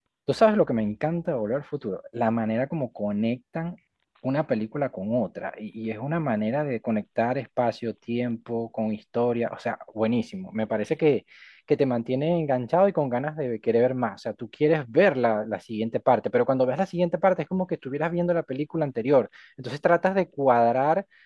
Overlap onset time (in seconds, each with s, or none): none